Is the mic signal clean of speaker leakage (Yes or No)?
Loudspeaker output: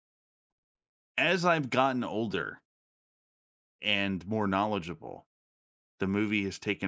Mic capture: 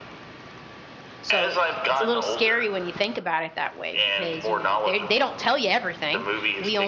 No